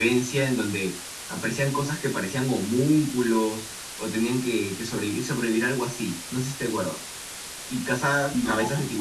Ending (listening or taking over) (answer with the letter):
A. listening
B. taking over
A